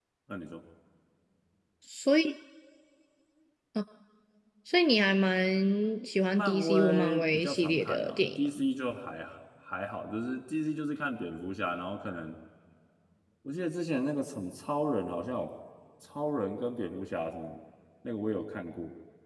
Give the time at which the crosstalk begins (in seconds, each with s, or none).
6.3 s